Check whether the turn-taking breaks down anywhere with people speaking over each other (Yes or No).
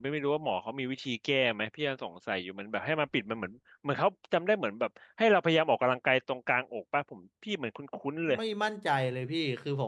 No